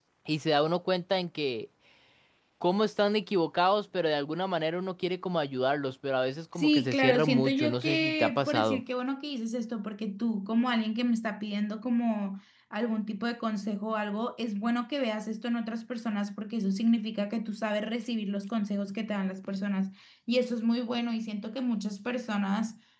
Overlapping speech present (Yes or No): Yes